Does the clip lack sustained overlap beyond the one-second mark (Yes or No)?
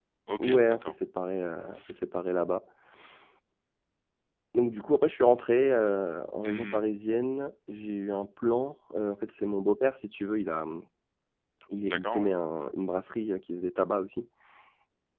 Yes